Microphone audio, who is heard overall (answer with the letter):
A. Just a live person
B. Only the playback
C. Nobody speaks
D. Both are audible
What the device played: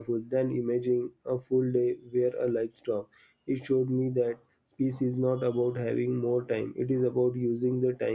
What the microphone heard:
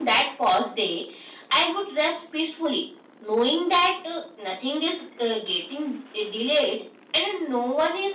A